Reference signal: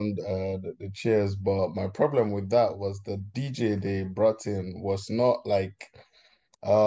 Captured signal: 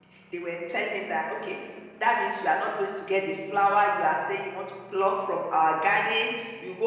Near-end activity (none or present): present